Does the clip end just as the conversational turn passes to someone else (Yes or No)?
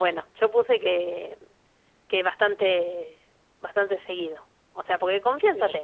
No